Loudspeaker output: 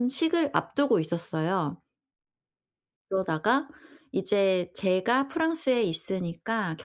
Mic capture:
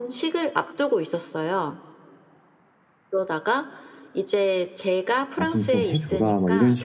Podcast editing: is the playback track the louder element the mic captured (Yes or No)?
No